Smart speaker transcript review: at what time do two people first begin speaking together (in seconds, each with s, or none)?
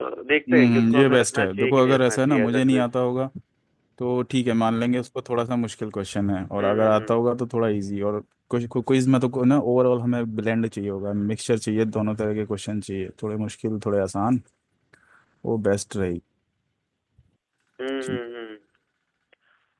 0.5 s